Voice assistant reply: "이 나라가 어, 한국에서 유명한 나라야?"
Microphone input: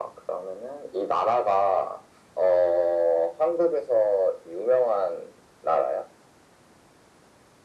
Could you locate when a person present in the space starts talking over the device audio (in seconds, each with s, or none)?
none